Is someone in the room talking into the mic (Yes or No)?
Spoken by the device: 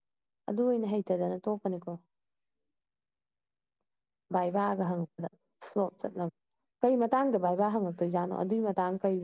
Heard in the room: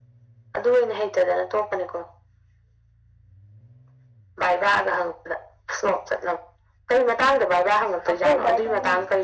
Yes